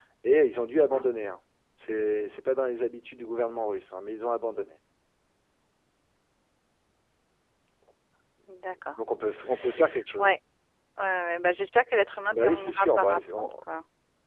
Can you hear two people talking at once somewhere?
Yes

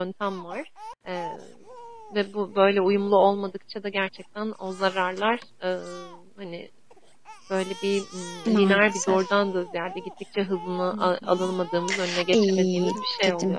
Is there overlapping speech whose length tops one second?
Yes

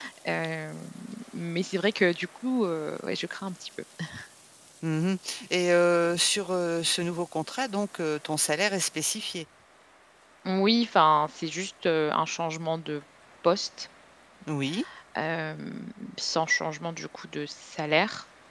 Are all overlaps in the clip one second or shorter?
Yes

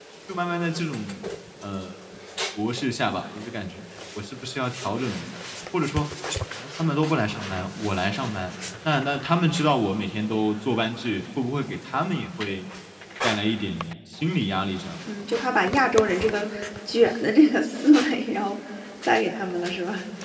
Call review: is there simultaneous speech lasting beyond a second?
No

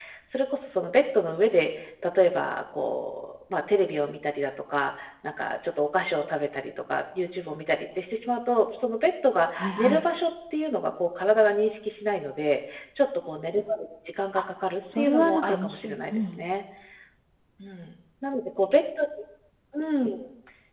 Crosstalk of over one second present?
Yes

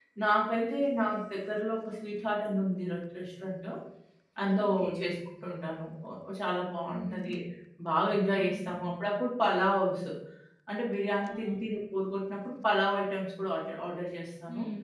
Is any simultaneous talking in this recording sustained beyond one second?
No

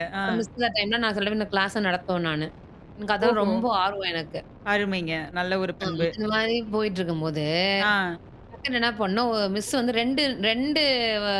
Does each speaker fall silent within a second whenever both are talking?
Yes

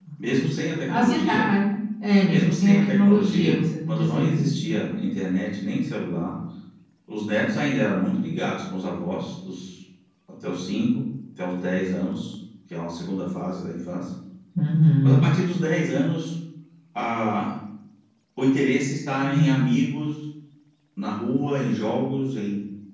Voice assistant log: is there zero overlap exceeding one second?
No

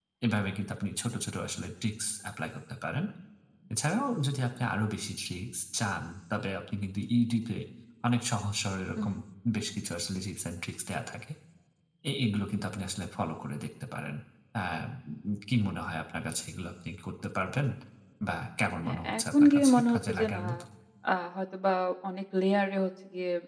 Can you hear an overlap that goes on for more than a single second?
Yes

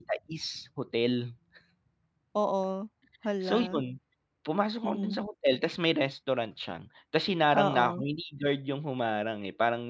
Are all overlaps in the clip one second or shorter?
Yes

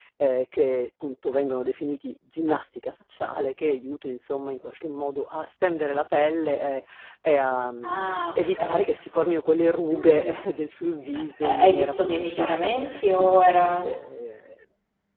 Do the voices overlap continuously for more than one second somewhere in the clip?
Yes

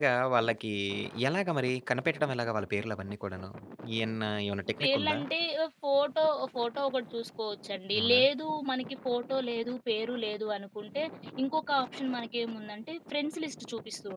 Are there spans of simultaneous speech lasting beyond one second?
No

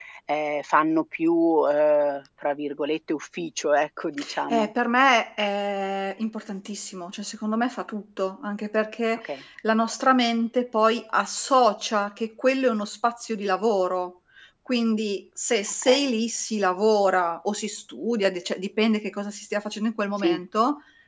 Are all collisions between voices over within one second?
Yes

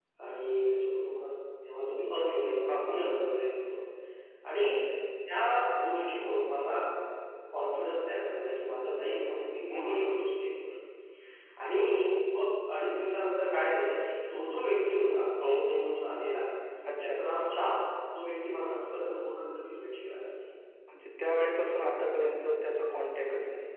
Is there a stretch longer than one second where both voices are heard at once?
No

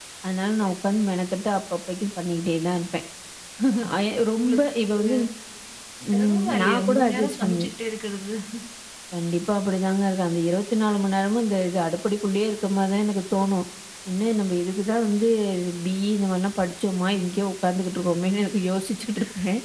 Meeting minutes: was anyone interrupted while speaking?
Yes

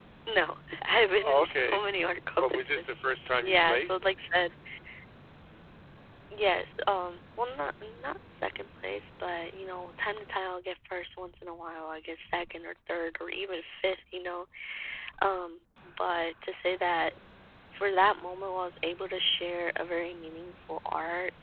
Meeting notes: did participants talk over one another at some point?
Yes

